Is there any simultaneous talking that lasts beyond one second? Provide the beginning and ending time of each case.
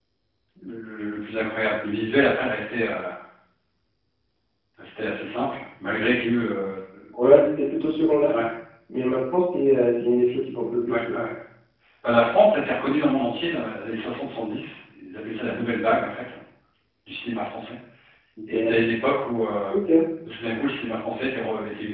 none

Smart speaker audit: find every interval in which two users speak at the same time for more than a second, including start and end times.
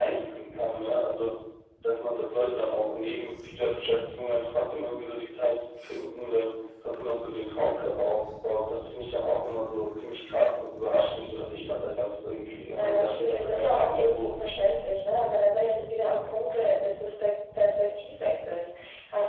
12.7-14.3

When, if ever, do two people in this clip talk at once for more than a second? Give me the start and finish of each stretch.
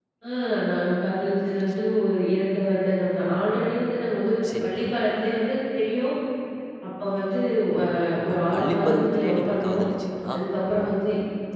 8.3-9.8

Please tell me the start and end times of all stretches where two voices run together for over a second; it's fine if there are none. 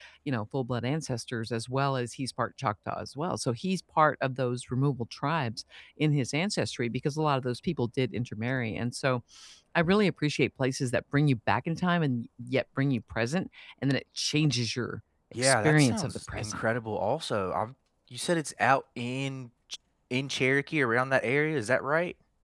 15.3-16.6

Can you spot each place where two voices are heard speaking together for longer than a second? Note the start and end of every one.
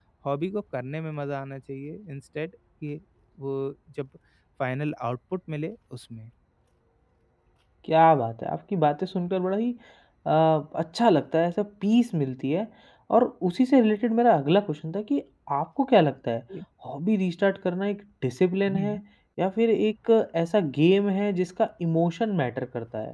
none

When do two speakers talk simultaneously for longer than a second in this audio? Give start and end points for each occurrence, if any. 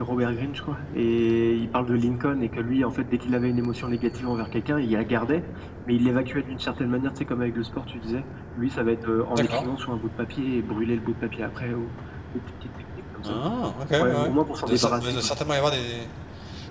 14.0-15.3

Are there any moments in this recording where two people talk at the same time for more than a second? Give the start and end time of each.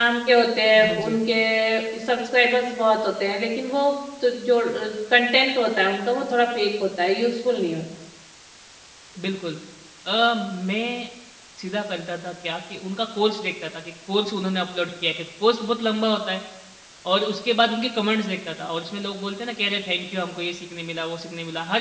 none

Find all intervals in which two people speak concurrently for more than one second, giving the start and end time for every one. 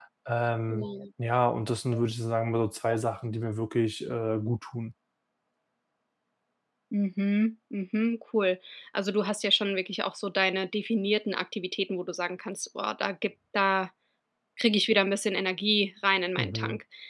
none

